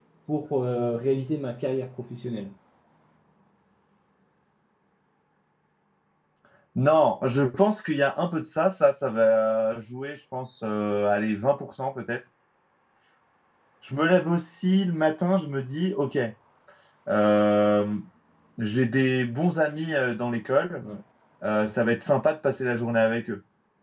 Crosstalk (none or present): none